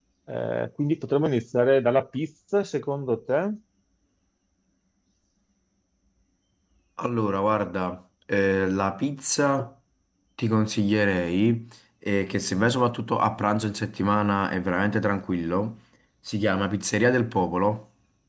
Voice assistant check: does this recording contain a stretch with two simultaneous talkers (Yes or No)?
No